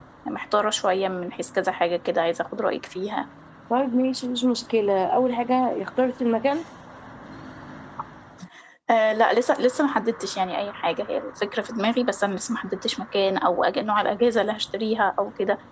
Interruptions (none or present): none